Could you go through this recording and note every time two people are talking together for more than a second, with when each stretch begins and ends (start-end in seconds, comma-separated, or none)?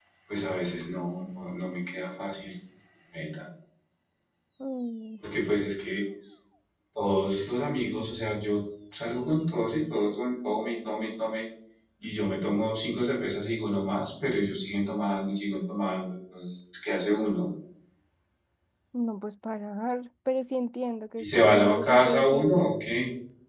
21.2-22.7